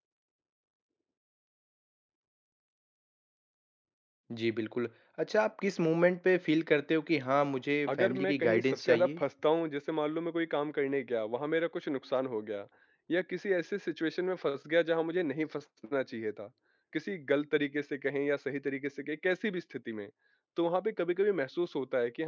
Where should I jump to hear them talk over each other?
8 s

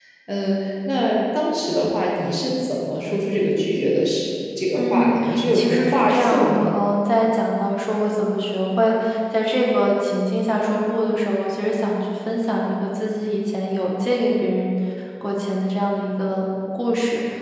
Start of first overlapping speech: 5 s

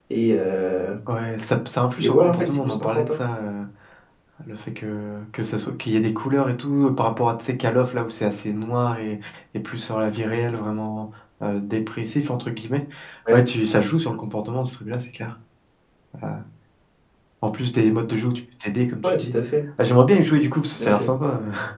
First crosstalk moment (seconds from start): 2 s

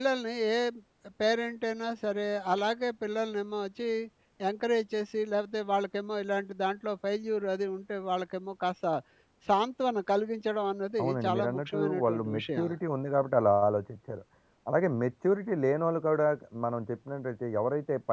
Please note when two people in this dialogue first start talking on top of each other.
11 s

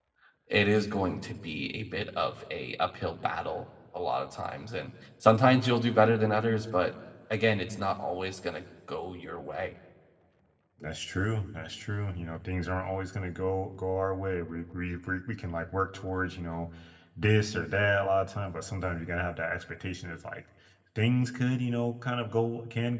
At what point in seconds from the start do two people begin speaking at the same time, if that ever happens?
none

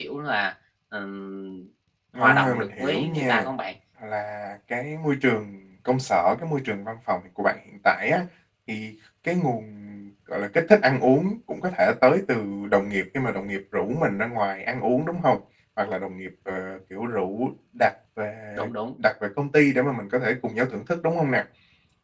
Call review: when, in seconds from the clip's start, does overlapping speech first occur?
2 s

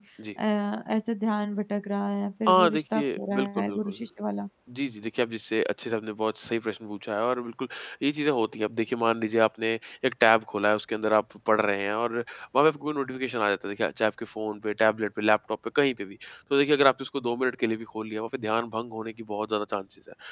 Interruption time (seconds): 2 s

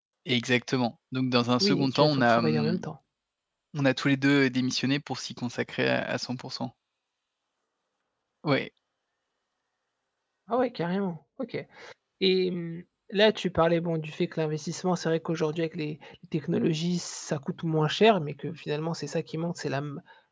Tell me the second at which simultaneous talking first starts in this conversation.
2 s

